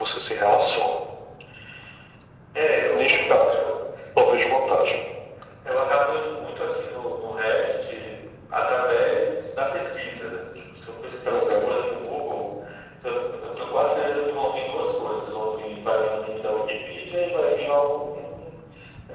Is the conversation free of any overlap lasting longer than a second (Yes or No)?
Yes